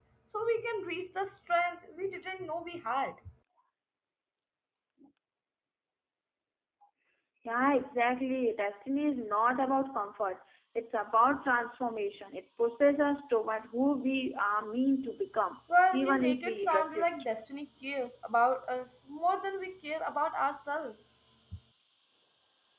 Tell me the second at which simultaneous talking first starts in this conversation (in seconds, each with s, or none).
15.9 s